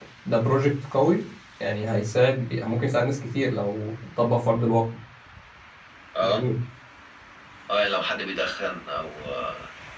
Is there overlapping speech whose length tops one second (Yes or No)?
No